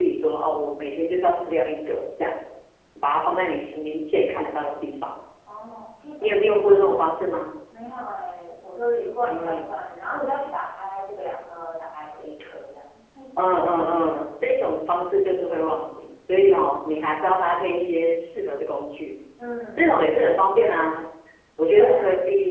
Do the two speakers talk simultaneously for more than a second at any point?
No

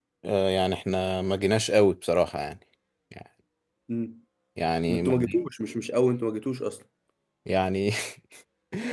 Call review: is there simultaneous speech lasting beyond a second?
No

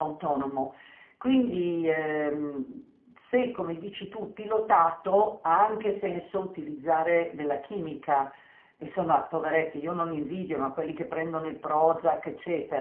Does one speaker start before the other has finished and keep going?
No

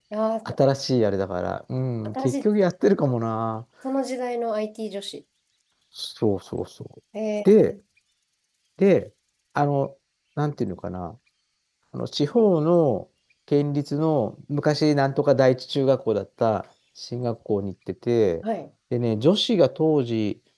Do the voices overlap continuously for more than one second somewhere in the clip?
No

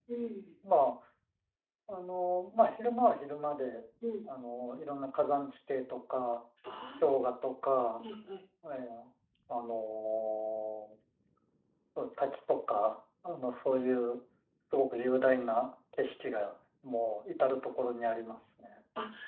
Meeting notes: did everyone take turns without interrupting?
Yes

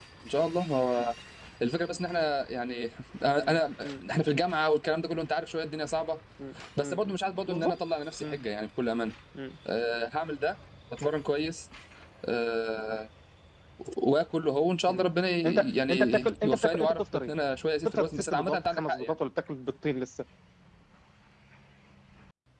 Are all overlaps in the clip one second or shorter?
No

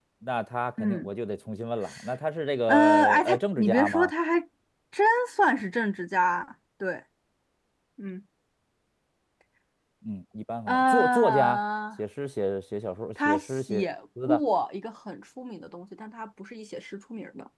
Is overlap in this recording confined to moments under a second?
No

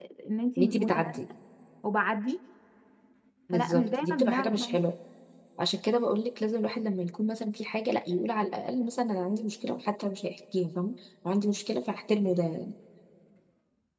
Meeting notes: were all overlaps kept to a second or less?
No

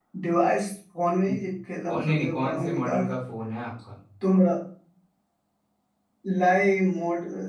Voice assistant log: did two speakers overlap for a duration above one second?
Yes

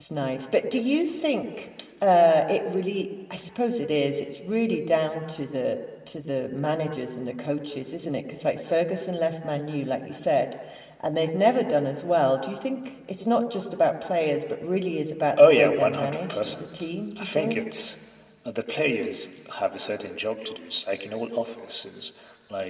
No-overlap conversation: No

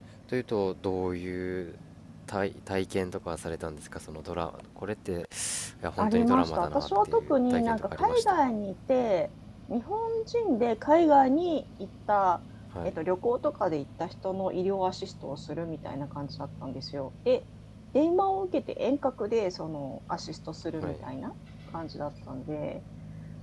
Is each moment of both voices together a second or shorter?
No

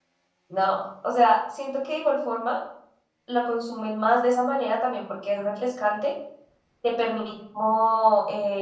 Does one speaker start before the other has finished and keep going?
No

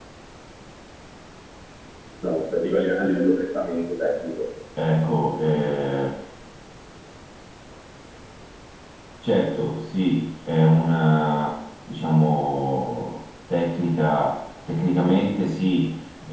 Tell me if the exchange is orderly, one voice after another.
Yes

